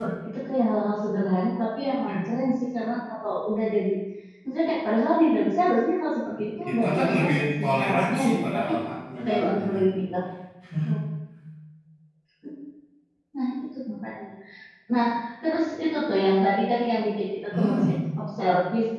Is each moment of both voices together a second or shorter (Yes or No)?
No